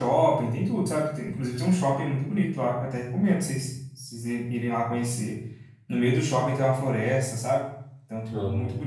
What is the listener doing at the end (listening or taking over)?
listening